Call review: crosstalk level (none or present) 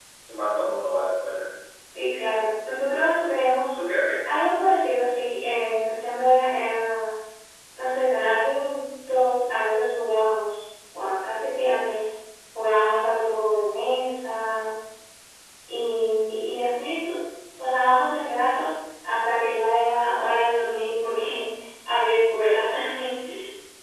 none